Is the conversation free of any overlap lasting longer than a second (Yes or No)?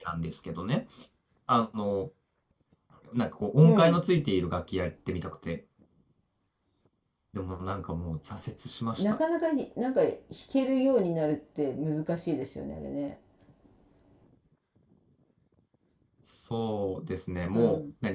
Yes